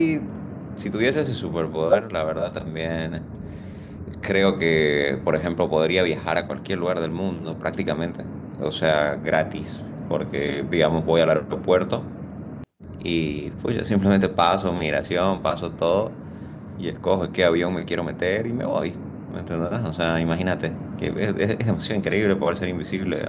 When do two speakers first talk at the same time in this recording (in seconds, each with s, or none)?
none